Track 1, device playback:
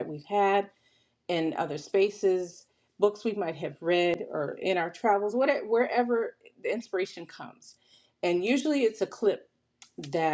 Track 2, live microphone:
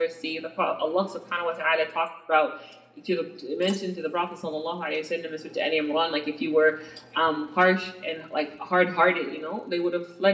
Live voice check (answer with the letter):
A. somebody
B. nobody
A